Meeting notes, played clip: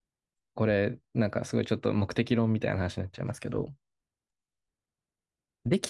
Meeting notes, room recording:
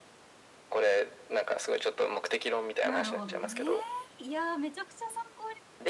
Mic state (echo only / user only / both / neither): both